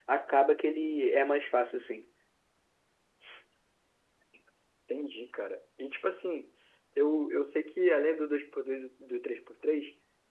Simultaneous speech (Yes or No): No